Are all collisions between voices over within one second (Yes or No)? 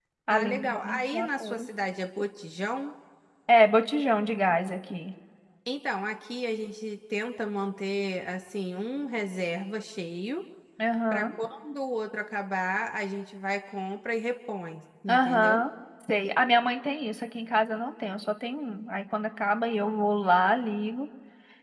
No